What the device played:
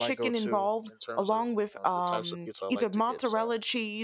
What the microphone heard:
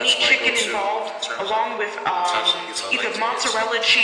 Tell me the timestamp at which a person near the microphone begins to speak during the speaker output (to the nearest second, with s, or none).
none